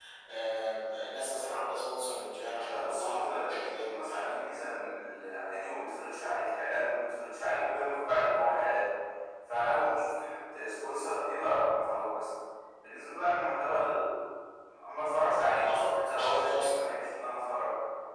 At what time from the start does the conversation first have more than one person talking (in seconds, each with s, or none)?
2.7 s